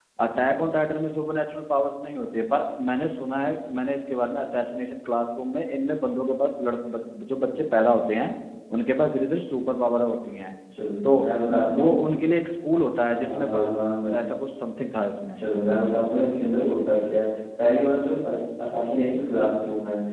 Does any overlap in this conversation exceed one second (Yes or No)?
No